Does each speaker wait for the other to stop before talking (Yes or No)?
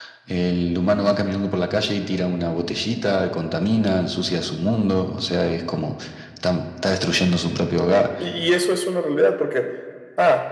Yes